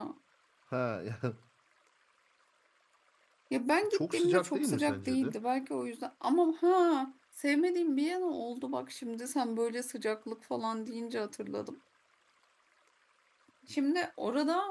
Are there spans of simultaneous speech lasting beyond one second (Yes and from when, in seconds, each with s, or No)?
Yes, from 3.9 s